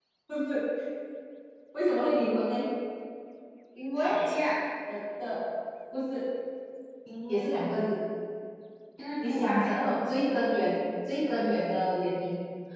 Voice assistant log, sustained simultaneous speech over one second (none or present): none